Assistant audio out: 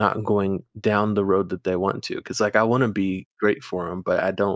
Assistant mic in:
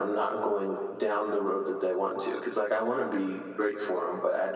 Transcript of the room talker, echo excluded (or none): none